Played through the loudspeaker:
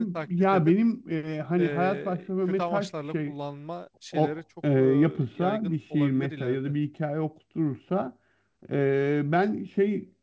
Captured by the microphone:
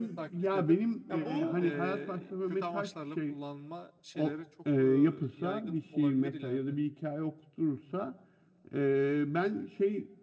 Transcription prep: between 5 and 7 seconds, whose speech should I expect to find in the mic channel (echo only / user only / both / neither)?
echo only